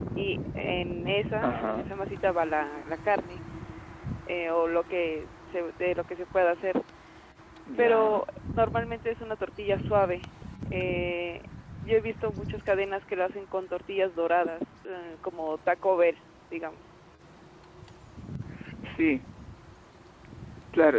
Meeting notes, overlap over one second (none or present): none